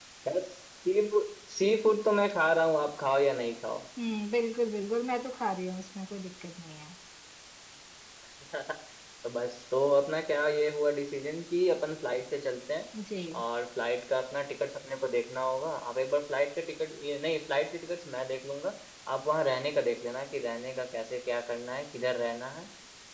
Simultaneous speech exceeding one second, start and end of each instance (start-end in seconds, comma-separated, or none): none